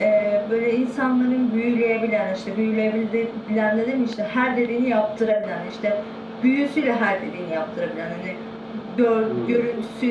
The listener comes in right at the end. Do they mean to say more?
No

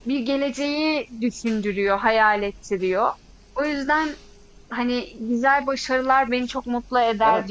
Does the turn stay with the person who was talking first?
No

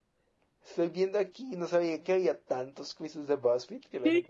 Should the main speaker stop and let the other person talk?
Yes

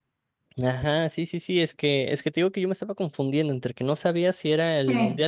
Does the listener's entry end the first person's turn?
No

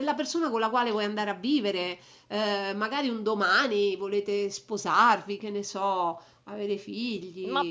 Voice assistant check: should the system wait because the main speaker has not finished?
No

